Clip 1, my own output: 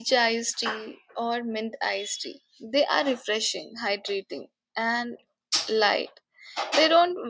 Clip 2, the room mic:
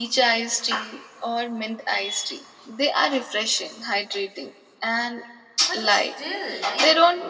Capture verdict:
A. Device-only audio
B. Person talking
B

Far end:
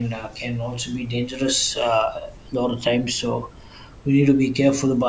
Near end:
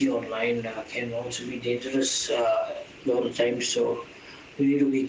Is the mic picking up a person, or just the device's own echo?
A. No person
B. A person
A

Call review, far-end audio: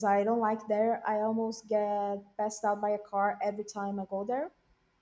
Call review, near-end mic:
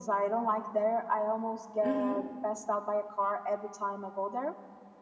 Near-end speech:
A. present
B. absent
A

